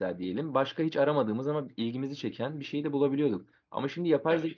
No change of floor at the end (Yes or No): Yes